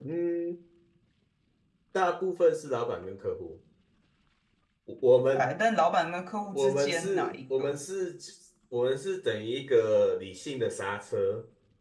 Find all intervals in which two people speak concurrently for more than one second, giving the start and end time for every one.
6.5-7.8

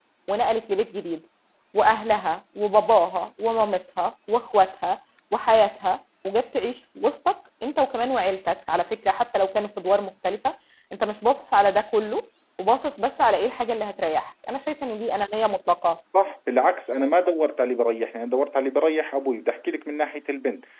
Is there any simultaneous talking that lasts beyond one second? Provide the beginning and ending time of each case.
none

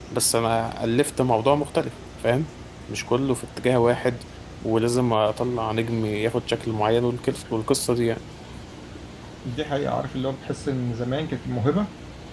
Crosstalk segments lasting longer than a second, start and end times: none

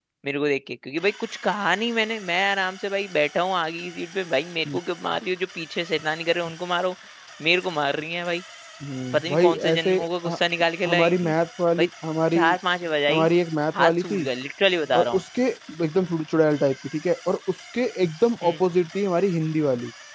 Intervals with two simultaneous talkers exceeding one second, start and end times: 9.1-10.4

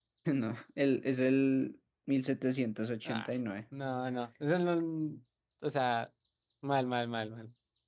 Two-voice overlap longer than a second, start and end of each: none

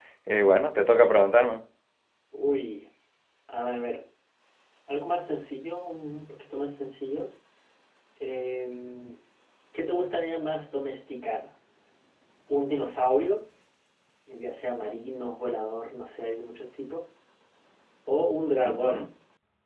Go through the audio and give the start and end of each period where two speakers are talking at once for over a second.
none

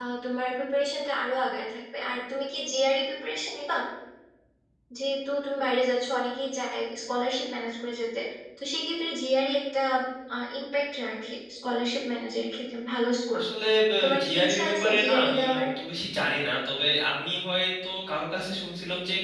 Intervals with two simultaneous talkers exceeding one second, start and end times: 14.2-15.6

